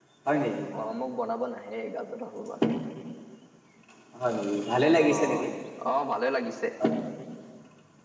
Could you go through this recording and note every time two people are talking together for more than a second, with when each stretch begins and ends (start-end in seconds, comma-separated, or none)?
none